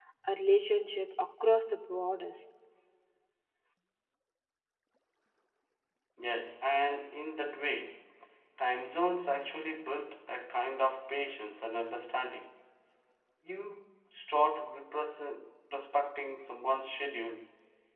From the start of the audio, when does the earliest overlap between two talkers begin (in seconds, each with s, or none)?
none